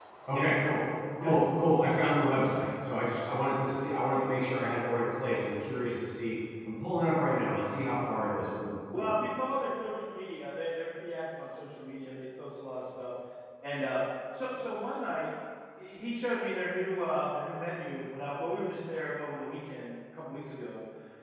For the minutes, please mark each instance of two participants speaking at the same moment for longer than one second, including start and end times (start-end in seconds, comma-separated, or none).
none